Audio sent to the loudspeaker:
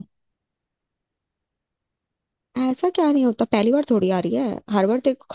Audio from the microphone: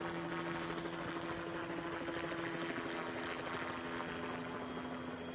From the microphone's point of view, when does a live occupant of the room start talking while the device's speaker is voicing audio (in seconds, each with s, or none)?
none